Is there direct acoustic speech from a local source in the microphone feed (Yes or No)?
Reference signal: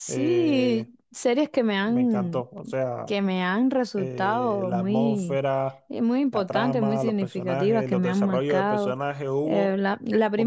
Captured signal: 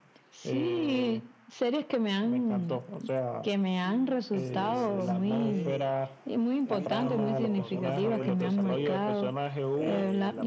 Yes